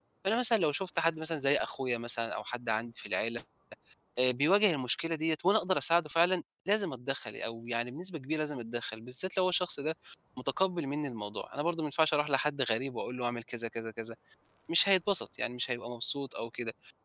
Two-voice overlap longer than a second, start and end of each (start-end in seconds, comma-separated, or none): none